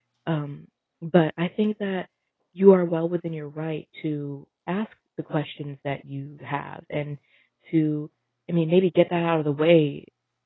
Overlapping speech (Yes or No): No